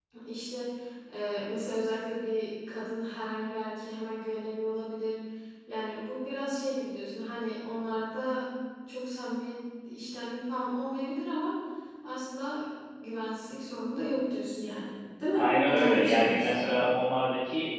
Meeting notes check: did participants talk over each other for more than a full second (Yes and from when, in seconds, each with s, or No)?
Yes, from 15.3 s